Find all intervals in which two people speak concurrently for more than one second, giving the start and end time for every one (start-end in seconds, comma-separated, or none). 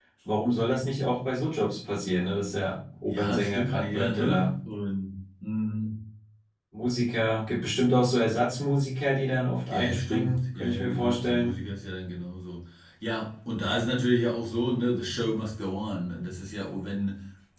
3.1-4.5, 9.7-11.5